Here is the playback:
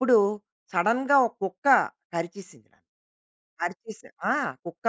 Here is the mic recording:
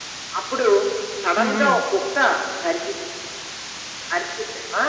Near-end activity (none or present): present